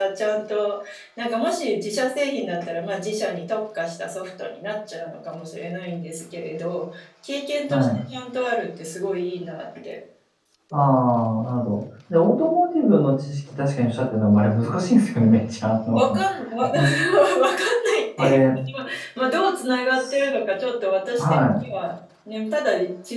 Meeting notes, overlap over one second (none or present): none